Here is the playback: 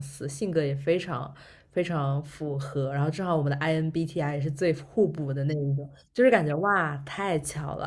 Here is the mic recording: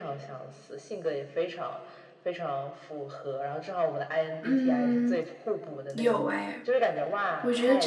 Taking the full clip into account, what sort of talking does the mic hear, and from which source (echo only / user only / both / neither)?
both